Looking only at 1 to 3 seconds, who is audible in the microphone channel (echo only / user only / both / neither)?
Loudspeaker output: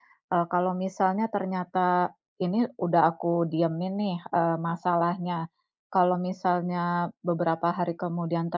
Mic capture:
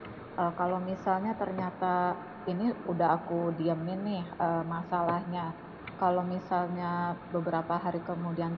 echo only